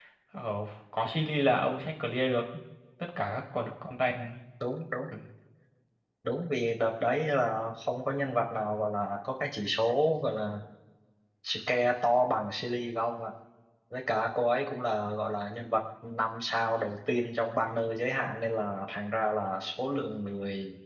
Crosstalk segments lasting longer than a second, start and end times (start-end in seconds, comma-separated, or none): none